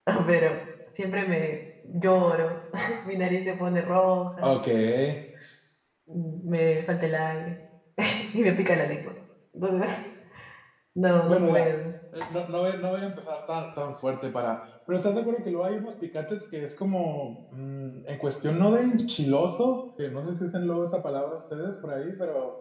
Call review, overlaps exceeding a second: none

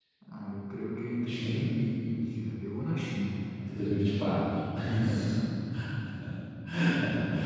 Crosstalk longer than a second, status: none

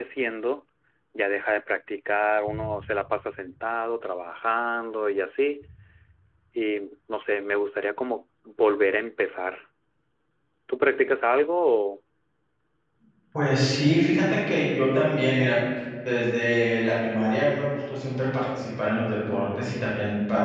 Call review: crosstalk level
none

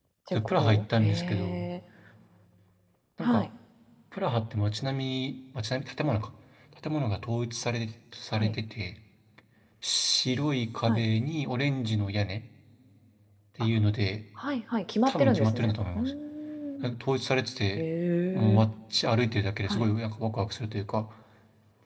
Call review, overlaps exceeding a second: present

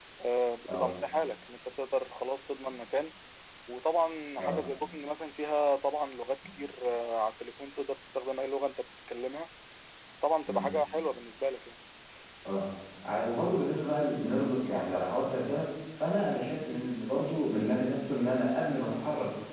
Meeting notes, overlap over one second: none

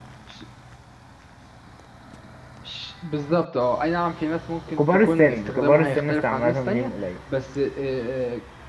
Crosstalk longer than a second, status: present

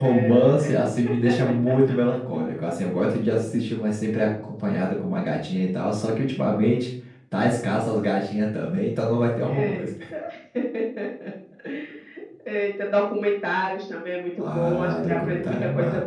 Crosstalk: present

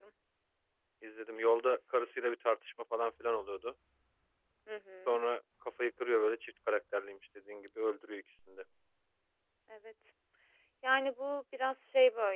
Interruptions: none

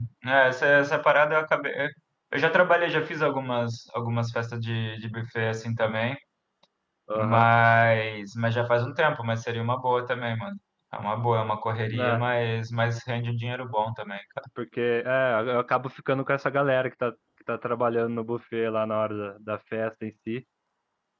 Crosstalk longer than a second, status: none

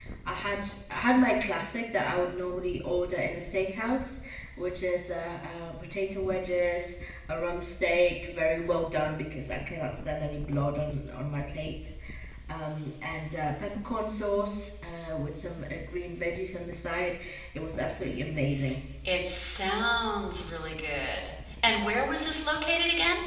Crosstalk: none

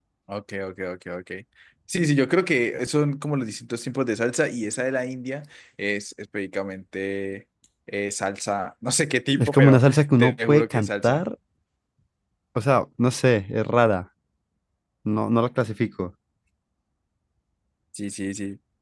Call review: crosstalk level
present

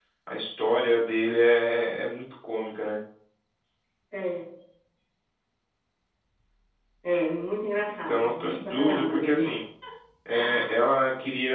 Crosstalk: present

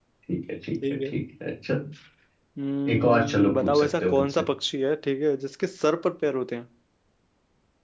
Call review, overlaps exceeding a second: present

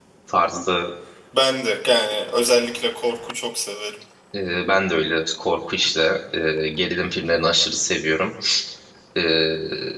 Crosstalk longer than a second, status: none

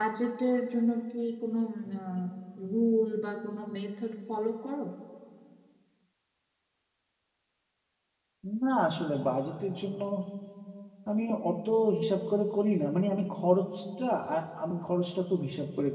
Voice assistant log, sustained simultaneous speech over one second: none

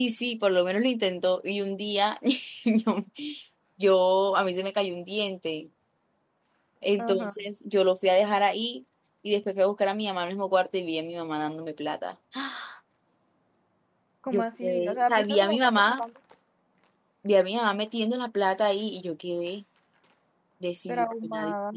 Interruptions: present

